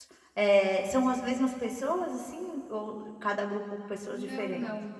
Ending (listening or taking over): taking over